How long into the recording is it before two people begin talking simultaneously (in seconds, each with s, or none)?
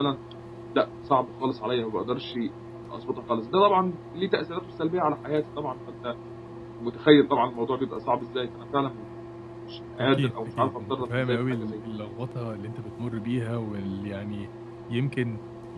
10.0 s